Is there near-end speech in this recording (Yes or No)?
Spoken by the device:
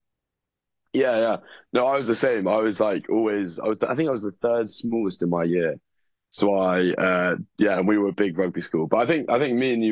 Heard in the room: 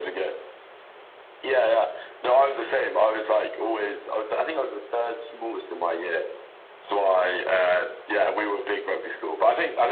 No